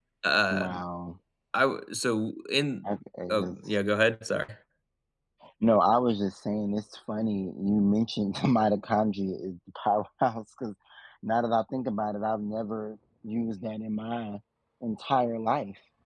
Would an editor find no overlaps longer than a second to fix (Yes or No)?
Yes